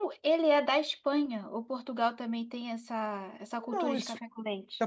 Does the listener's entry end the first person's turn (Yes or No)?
Yes